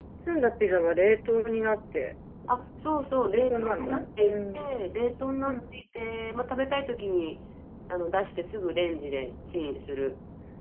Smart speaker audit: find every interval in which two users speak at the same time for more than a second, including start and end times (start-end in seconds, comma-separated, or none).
3.3-4.6